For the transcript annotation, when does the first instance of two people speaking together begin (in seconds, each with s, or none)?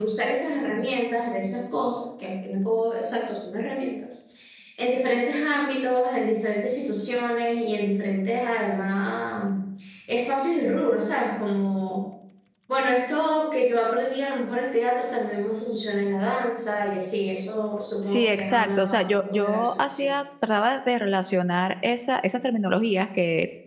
18.1 s